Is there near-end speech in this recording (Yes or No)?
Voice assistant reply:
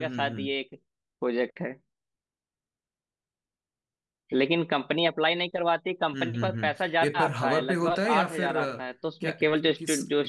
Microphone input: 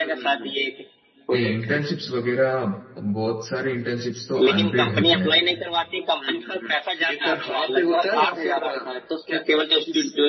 Yes